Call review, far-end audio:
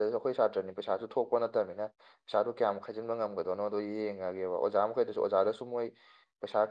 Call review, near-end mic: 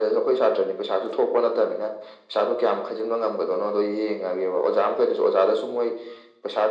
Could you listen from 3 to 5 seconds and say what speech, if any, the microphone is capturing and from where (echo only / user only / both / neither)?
echo only